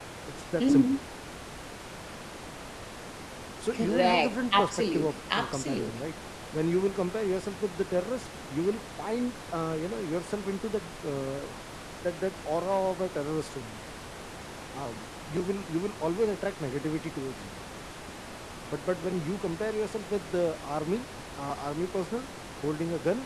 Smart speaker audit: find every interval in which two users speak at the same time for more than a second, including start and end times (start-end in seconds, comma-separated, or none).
3.7-5.9